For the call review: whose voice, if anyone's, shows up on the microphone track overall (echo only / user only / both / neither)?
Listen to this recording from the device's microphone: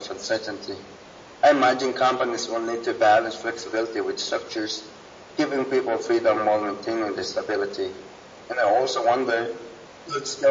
echo only